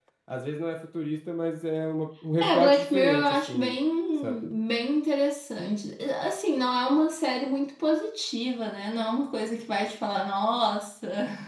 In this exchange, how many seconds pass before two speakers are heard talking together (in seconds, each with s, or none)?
2.4 s